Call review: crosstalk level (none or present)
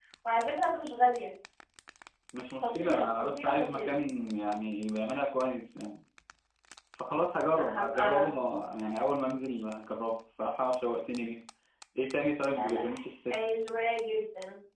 present